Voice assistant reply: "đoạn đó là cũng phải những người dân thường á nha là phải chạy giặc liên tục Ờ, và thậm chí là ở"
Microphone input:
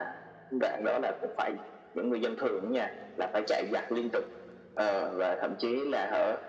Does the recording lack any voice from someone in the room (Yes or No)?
Yes